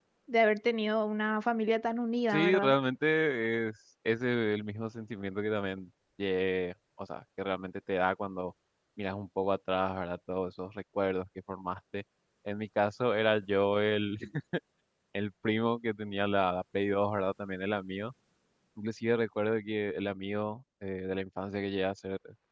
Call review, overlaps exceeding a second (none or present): none